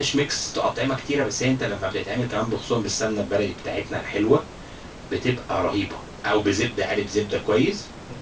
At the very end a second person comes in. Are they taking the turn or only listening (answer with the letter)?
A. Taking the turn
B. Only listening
A